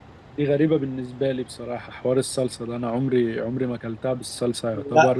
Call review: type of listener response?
listening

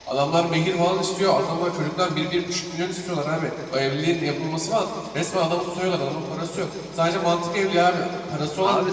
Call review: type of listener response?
listening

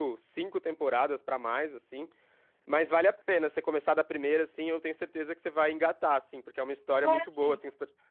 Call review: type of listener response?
listening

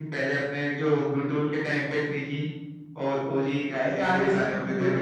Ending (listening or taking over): taking over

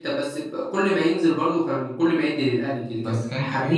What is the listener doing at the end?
taking over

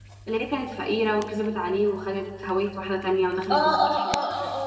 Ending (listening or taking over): taking over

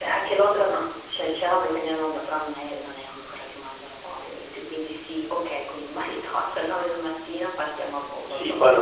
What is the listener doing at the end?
taking over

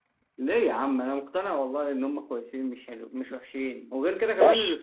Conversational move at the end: taking over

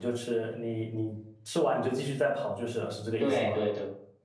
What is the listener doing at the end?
taking over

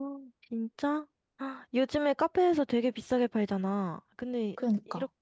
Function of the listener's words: listening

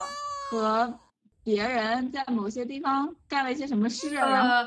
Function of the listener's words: taking over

